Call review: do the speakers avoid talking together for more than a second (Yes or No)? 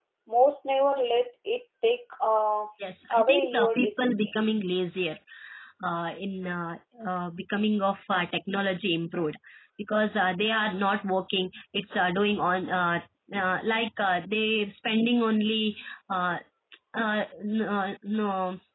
No